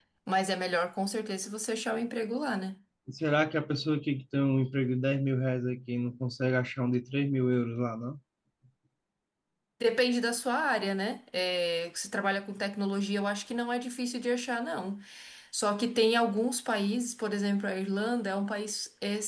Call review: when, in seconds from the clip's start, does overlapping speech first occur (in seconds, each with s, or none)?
none